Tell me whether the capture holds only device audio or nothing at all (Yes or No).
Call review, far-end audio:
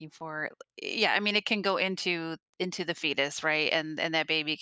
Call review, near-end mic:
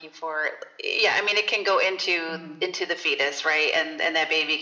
No